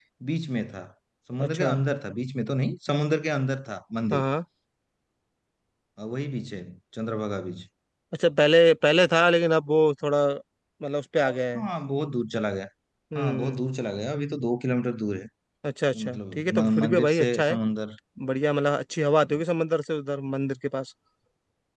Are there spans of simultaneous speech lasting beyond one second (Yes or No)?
Yes